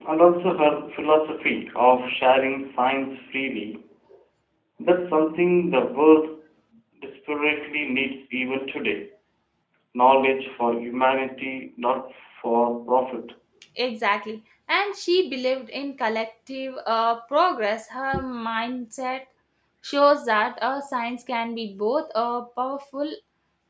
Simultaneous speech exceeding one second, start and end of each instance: none

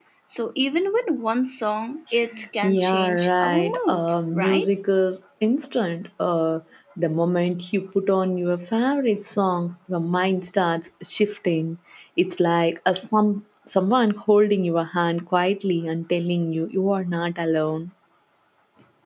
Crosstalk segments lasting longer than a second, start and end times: 2.6-4.7

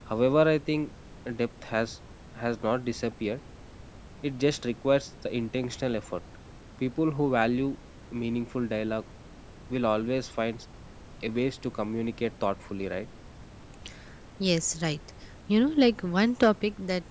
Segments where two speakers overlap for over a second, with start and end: none

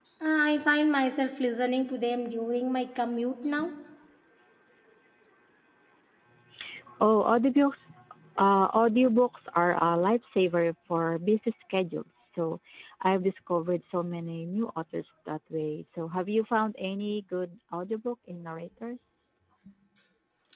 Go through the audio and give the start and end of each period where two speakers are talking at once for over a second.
none

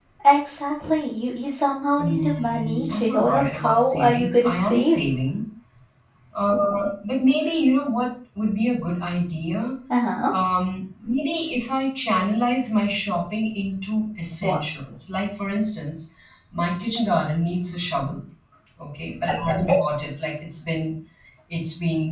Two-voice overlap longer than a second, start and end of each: 2.0-5.0

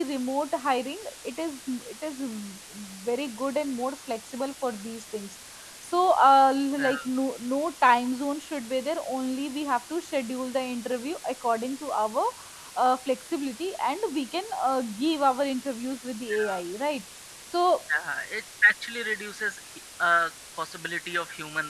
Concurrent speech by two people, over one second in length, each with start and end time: none

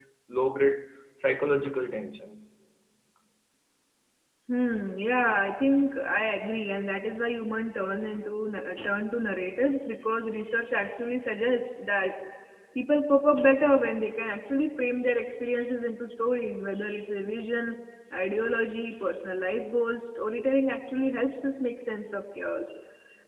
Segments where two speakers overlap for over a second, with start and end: none

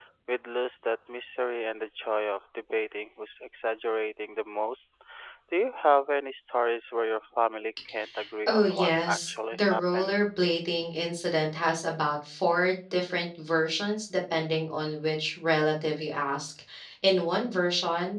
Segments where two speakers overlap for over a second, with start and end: 8.5-10.2

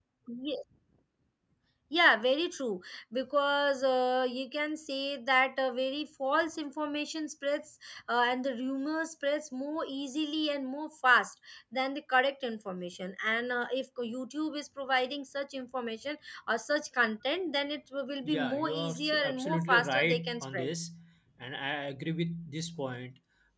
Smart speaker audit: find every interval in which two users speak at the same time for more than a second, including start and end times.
18.2-20.7

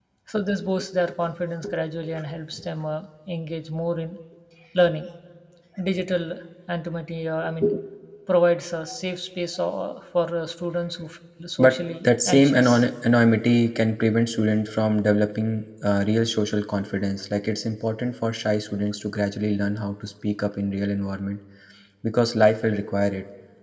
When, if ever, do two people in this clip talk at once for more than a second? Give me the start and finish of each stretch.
11.6-12.8

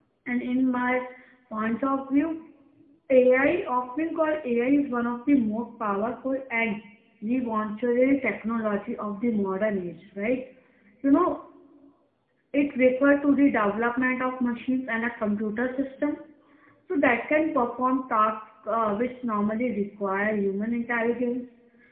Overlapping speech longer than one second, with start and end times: none

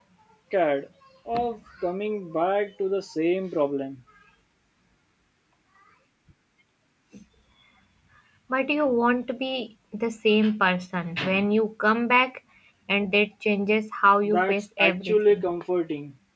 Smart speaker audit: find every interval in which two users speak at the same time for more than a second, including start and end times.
14.2-15.5

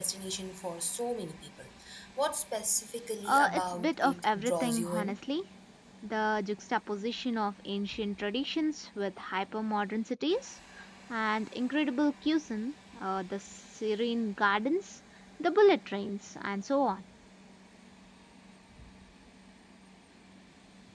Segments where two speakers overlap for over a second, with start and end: 3.2-5.2

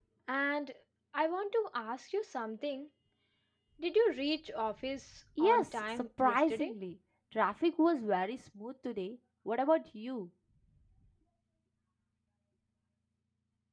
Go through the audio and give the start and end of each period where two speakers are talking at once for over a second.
5.4-6.7

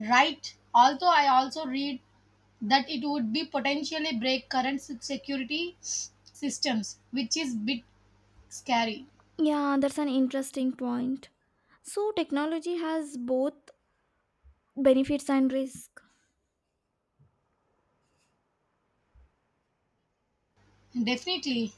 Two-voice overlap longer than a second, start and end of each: none

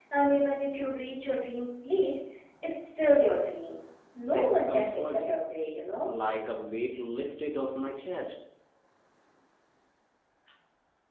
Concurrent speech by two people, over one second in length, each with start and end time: 4.2-5.4

